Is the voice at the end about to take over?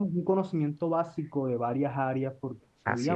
No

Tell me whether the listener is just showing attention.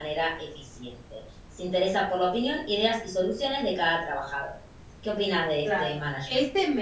No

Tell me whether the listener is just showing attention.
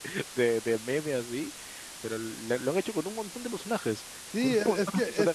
No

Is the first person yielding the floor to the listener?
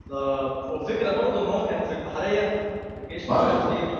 No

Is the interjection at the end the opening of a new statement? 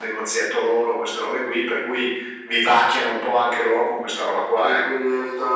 Yes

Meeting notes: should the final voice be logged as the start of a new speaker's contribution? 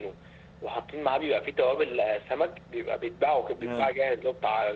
No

